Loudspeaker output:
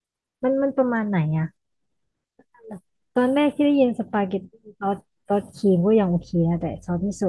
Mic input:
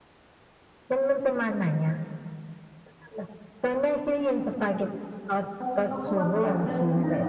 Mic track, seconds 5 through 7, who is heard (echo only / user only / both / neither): both